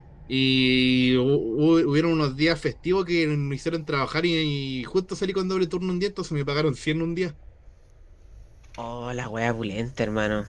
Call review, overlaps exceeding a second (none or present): none